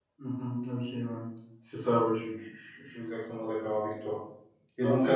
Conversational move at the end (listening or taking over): listening